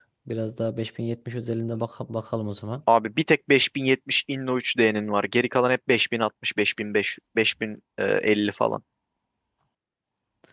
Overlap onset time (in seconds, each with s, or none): none